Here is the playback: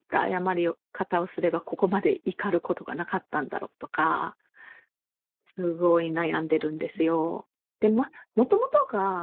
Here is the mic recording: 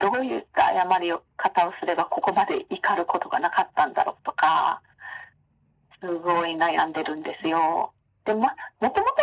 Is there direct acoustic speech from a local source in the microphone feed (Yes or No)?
No